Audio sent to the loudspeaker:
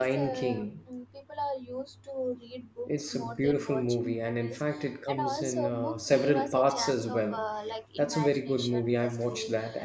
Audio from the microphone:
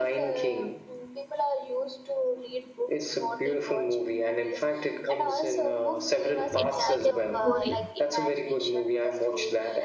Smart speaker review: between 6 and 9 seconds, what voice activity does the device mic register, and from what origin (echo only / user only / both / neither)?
both